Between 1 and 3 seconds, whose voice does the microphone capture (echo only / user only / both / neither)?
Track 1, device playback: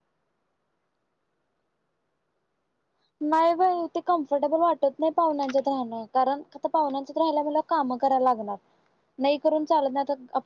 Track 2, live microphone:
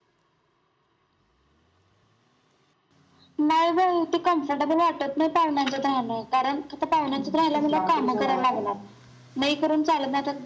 neither